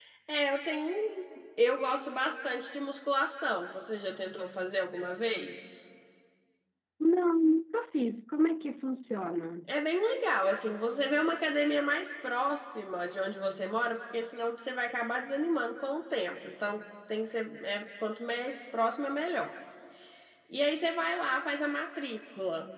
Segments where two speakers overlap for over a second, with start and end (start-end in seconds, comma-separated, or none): none